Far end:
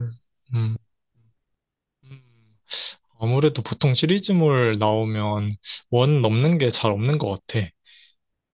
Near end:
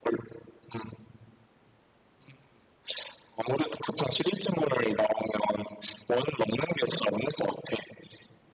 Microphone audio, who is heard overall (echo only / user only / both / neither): echo only